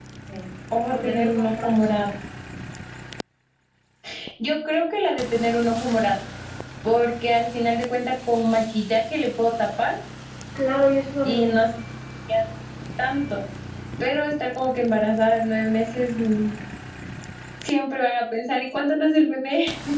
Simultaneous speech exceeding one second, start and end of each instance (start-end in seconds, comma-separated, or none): 0.9-2.1